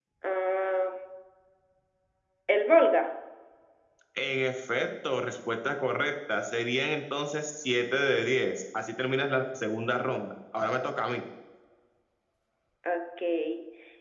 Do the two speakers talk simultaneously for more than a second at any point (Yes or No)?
No